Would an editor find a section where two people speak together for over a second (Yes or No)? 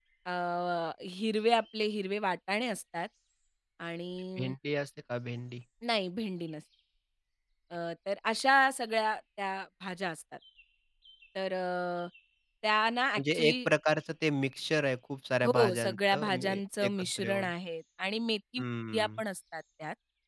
Yes